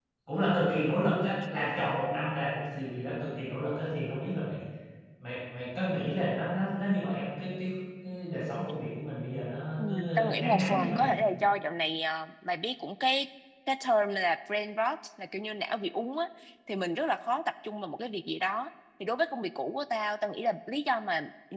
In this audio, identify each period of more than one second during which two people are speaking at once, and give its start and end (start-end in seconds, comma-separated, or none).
9.8-11.1